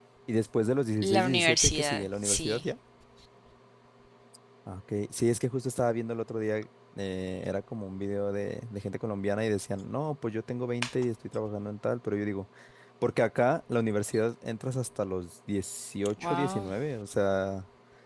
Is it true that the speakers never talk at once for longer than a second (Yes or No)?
No